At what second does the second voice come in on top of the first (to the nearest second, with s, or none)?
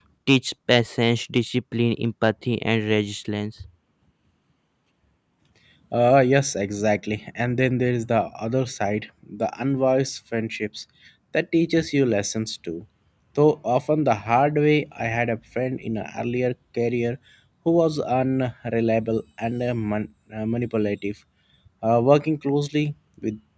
none